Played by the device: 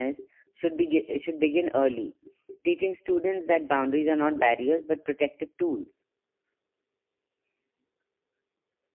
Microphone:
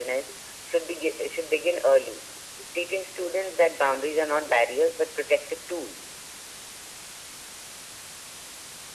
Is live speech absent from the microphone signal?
Yes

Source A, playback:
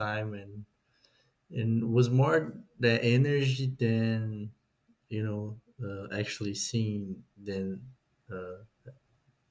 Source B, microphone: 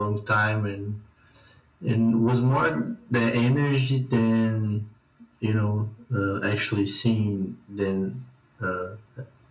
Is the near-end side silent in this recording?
Yes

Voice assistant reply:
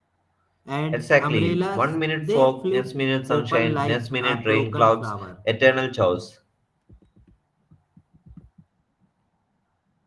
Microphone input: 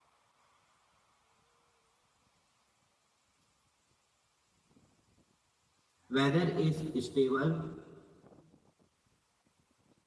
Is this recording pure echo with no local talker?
No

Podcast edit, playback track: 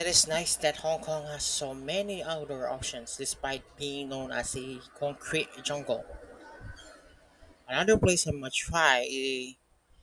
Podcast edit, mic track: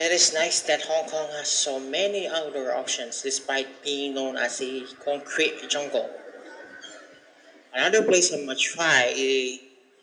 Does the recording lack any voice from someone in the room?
Yes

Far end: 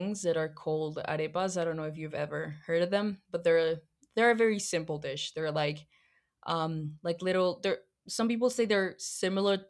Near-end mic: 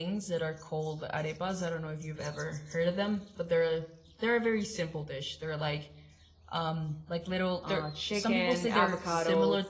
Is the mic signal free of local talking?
No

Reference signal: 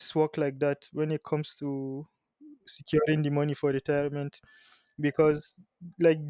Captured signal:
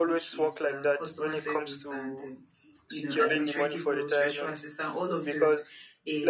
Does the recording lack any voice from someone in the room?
No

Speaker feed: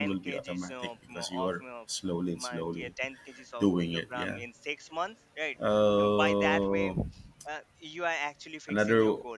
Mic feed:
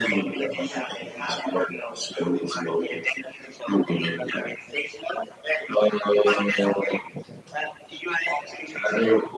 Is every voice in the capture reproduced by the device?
No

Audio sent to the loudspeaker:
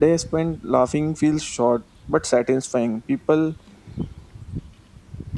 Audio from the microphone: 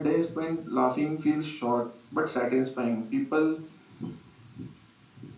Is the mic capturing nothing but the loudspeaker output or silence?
Yes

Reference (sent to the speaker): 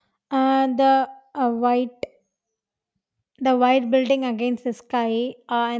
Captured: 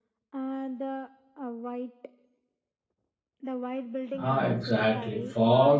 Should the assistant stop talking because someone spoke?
Yes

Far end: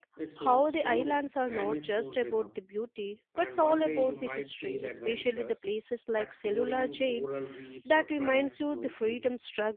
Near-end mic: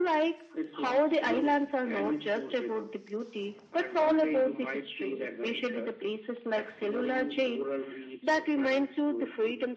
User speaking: No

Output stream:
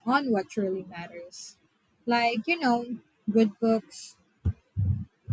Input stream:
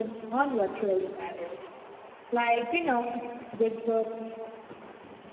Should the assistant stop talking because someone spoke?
No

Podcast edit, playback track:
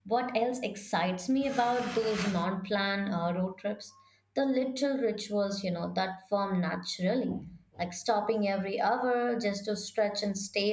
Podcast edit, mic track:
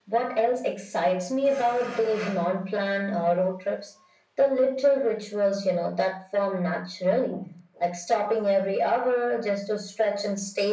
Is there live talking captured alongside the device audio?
No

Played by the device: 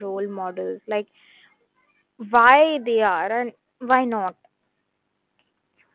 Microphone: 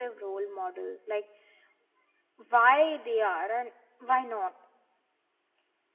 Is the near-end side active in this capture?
No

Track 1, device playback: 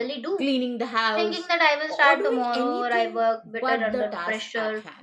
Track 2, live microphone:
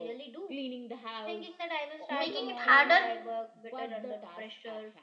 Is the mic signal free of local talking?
No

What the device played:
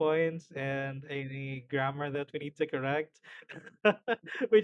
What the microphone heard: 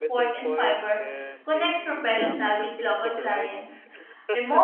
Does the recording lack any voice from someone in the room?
No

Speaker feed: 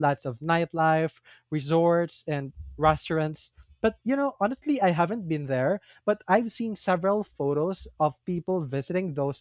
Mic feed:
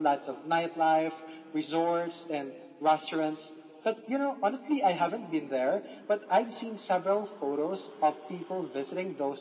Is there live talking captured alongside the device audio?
No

